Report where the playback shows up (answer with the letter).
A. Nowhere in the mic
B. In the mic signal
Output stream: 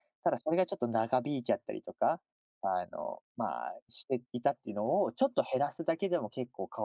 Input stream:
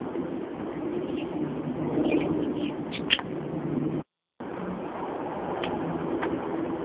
A